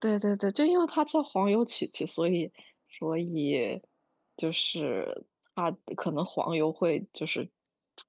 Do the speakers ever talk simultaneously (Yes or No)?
No